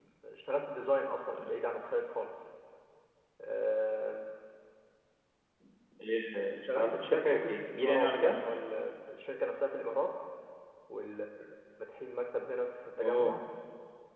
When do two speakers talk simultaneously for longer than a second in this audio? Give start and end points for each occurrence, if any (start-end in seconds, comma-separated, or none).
6.8-8.4